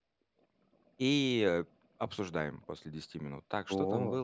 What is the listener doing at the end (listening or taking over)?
listening